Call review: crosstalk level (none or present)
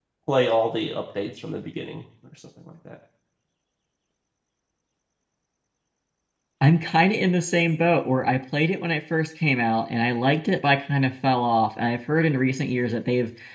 none